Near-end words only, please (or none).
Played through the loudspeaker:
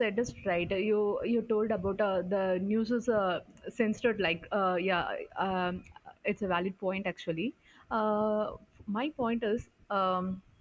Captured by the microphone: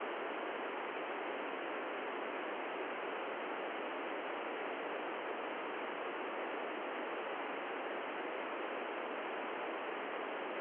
none